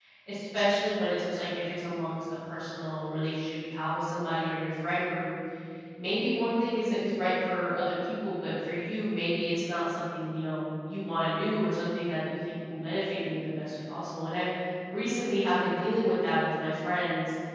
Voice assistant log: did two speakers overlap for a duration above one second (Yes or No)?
No